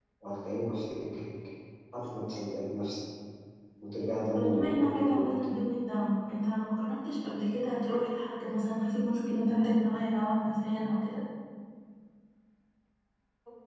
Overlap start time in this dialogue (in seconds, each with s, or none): 4.1 s